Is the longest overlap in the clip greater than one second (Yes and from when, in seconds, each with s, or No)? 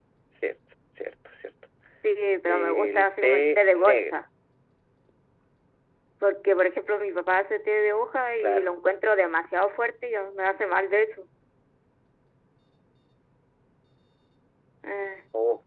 Yes, from 2.5 s